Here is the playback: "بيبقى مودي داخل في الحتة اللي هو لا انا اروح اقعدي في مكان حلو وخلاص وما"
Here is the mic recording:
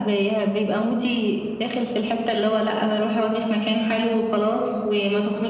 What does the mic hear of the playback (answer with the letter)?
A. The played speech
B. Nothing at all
A